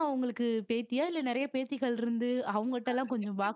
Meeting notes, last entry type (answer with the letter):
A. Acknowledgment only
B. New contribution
A